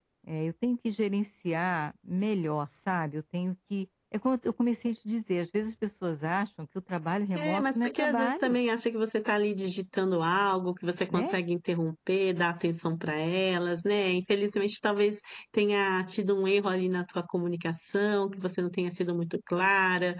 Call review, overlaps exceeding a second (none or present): present